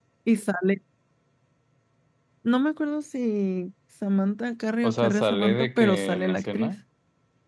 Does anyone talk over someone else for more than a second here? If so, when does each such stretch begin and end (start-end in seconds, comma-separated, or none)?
4.8-6.7